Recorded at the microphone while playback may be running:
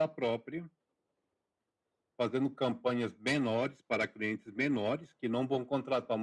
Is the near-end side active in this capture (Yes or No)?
No